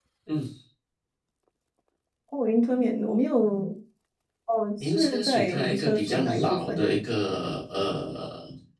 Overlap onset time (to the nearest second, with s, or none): 5 s